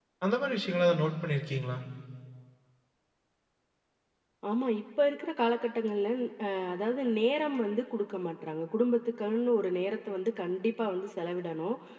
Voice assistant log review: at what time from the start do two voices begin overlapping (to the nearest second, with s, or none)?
none